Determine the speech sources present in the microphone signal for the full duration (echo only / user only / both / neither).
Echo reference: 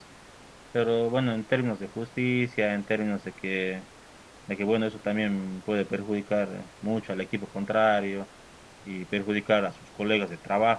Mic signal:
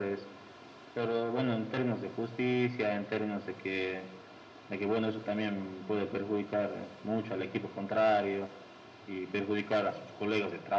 echo only